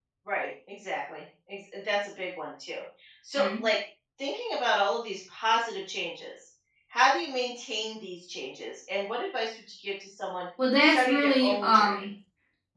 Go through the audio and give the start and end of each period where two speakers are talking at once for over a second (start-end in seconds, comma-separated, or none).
10.8-12.1